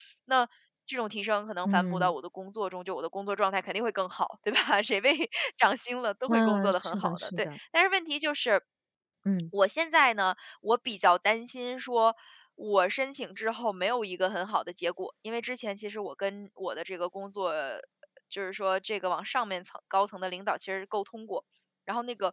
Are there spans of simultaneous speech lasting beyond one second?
Yes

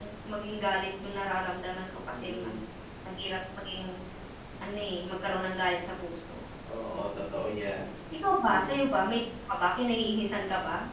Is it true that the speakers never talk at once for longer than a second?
Yes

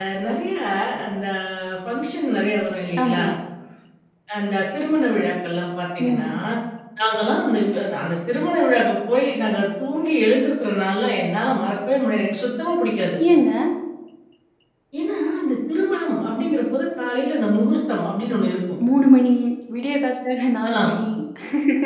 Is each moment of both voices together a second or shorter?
Yes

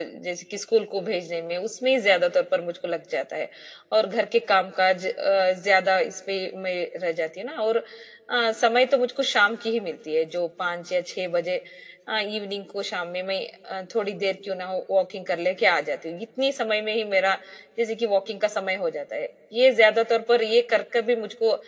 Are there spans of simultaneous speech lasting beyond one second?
No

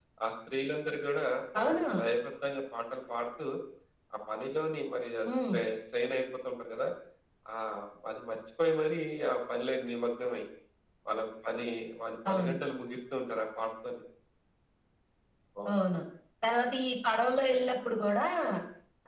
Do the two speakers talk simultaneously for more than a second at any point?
No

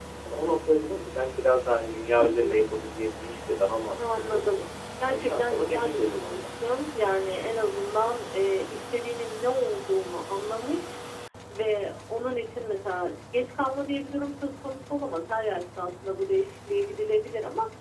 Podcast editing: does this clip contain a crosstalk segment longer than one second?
Yes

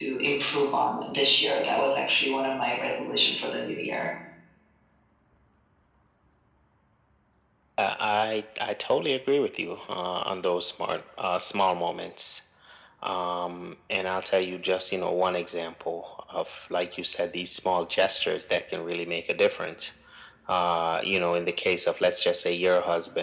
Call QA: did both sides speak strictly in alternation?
Yes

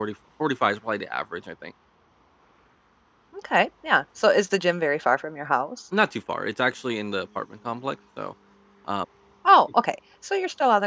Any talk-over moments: No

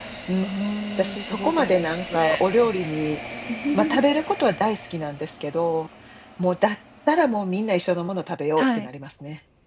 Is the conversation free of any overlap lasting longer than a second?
No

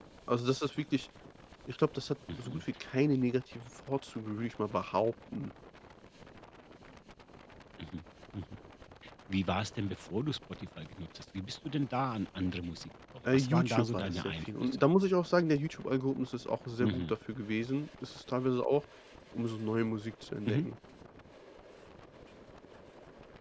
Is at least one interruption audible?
Yes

